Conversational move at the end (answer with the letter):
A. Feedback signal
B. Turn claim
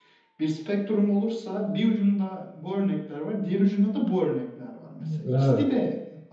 A